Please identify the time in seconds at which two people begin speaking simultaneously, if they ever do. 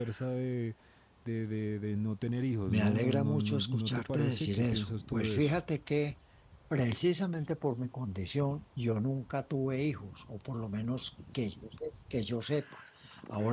2.7 s

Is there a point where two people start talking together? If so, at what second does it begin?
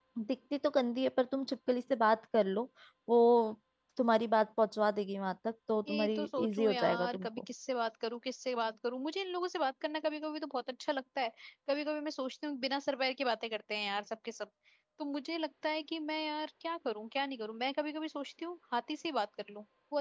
5.9 s

